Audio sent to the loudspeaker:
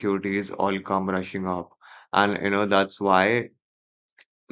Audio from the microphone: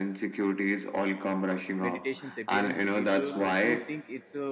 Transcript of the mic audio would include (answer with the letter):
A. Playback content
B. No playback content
A